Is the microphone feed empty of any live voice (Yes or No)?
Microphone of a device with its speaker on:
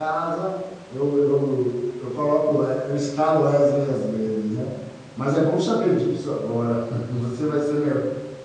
No